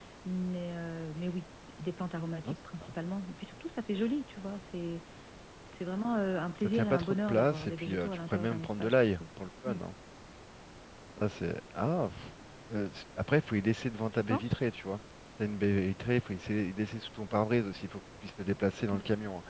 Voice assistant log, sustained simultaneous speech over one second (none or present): present